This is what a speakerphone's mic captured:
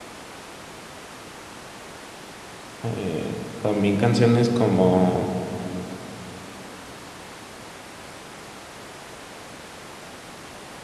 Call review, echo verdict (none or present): none